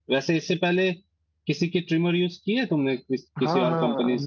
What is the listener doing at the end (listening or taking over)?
taking over